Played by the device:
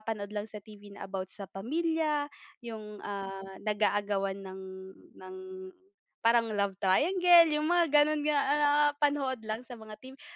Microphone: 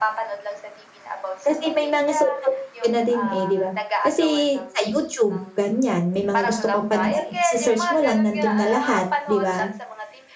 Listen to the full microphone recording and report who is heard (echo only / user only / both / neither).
both